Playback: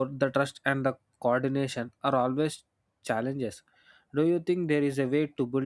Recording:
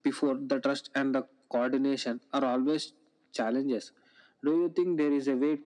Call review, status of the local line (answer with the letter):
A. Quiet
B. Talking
A